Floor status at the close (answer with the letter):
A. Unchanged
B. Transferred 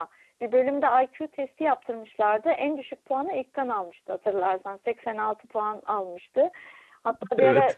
A